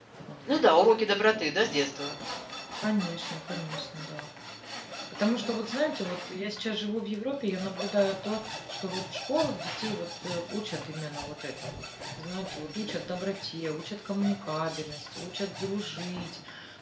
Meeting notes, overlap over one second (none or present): none